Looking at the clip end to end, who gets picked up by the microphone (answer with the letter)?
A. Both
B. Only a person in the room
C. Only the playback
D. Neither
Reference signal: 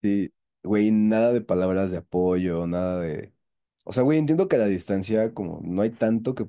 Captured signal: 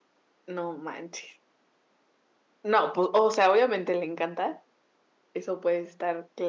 B